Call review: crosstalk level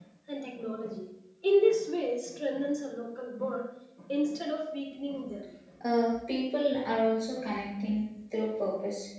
none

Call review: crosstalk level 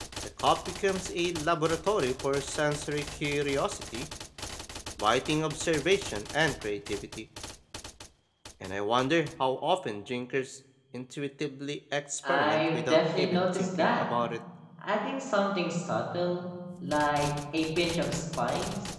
present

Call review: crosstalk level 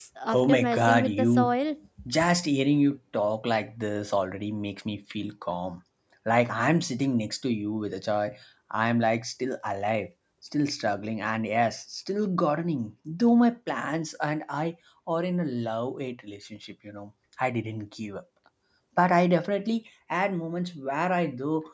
present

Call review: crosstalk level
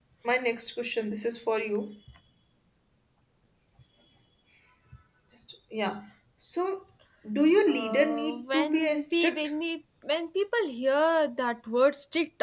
present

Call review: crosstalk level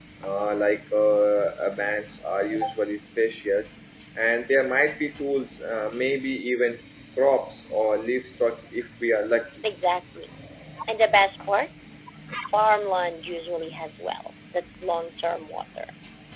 none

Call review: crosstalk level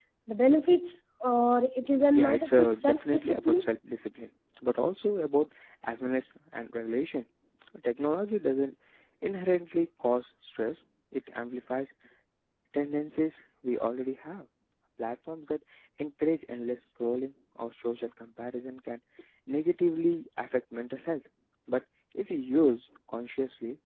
present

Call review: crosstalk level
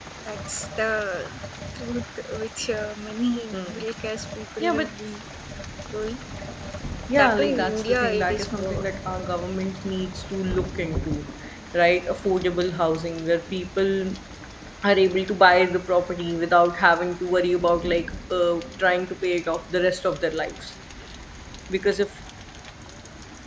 present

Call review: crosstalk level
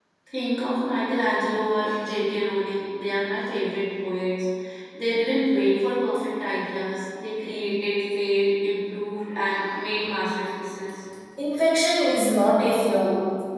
none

